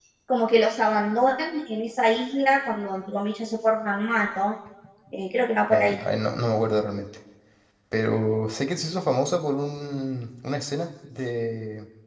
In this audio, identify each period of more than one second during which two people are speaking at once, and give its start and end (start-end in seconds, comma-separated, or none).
none